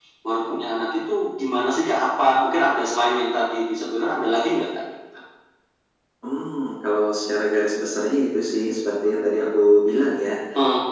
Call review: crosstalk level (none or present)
none